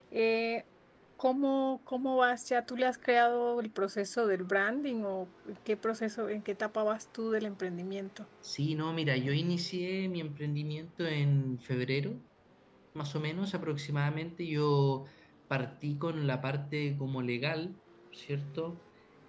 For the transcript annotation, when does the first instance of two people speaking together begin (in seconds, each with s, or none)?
none